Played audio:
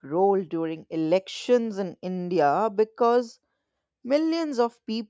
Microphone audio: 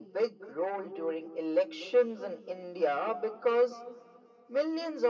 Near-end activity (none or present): none